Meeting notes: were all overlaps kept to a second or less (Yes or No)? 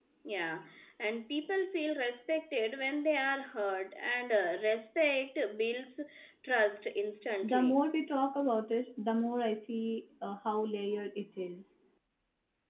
Yes